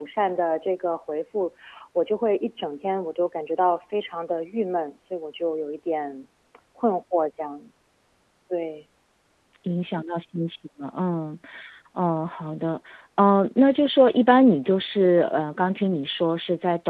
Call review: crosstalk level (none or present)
none